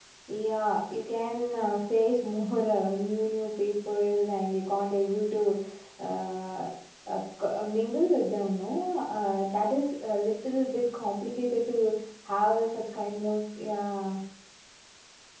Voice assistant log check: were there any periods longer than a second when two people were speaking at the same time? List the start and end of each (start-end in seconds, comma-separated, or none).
none